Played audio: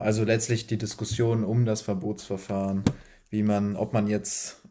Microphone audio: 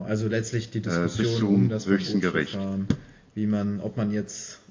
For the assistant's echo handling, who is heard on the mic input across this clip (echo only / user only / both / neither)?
both